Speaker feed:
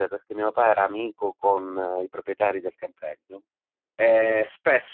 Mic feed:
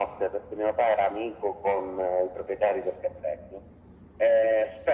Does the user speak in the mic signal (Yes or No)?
No